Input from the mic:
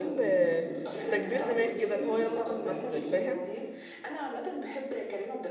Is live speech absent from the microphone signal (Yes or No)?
No